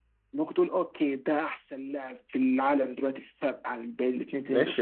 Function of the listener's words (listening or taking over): taking over